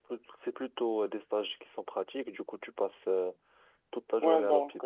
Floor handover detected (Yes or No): Yes